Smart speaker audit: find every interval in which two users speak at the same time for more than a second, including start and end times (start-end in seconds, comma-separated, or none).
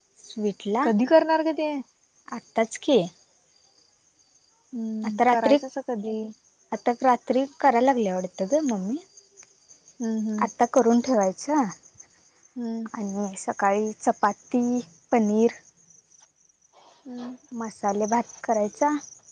none